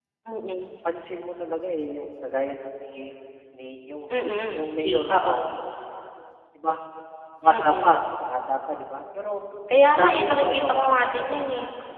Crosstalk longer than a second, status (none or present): present